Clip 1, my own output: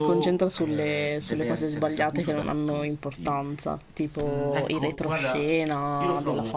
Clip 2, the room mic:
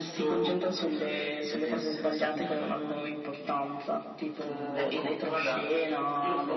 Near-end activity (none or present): none